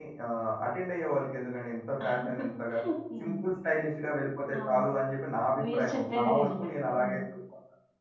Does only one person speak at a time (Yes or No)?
No